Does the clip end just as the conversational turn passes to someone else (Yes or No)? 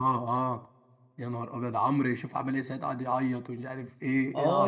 Yes